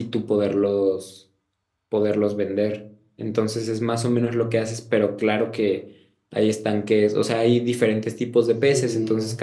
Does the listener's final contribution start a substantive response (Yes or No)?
No